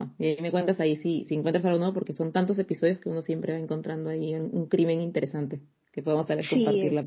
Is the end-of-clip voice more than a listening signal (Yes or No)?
Yes